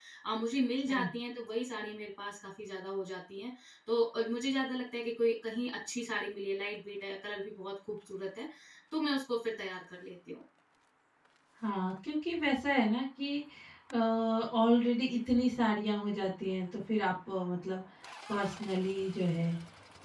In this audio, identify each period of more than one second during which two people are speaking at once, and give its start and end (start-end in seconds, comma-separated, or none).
none